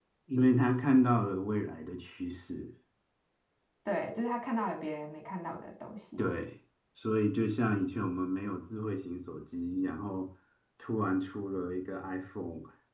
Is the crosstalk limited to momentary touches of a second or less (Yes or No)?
Yes